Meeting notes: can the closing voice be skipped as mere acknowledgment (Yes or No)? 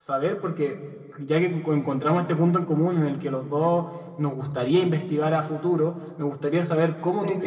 Yes